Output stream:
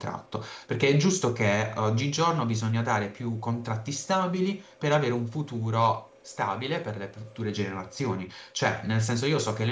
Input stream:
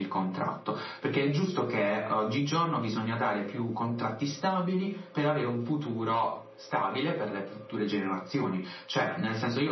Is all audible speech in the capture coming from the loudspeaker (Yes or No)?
Yes